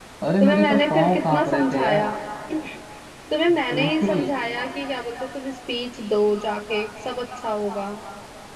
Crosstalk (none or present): present